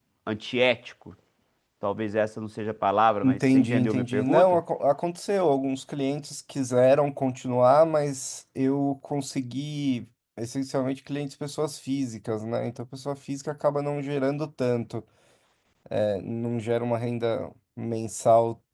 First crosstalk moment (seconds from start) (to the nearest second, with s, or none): 3 s